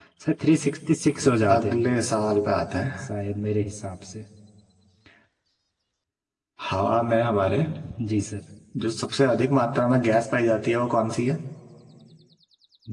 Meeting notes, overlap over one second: none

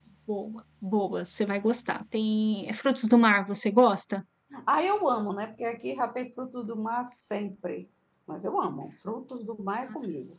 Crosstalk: none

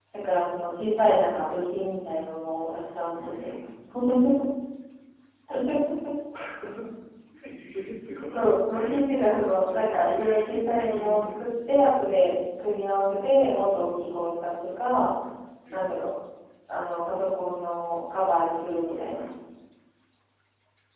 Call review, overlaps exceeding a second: present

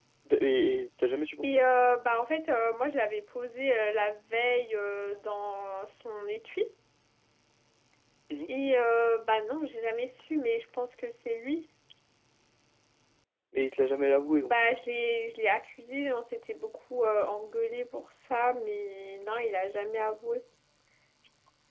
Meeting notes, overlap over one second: none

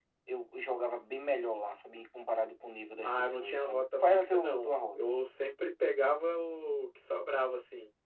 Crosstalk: present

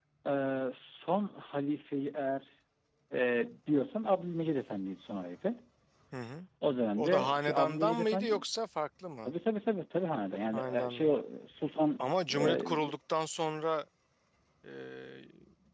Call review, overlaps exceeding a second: present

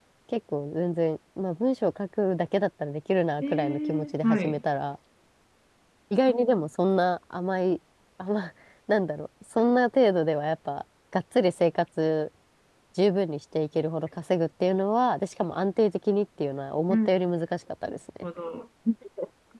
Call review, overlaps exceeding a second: present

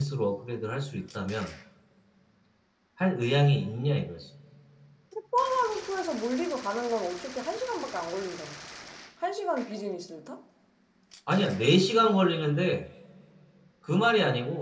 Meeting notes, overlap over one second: none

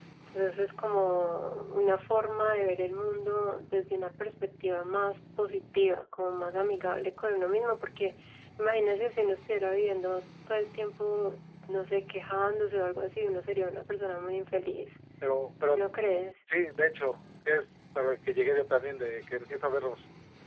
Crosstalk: none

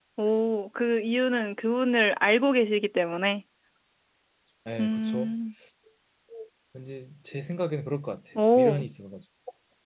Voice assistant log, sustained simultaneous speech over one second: none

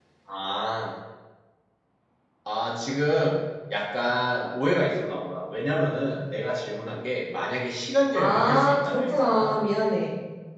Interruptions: present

